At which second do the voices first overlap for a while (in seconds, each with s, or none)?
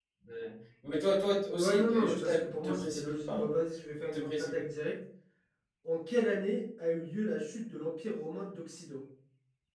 1.6 s